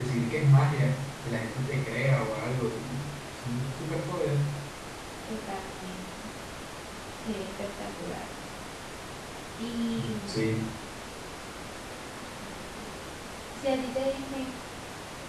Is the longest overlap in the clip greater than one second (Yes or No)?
No